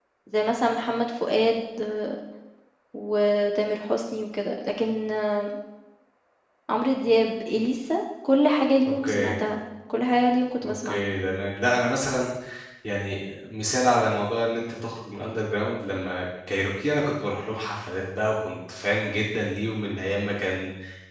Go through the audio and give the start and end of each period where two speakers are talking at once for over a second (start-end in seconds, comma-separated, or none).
none